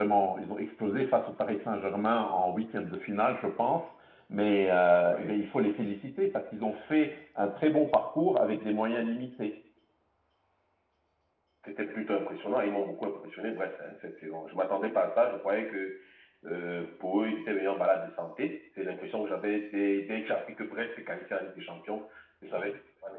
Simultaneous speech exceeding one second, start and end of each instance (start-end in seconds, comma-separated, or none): none